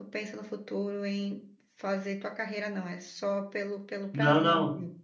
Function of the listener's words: taking over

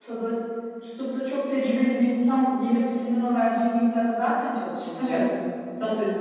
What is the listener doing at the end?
taking over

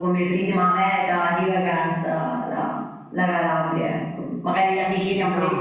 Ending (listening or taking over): listening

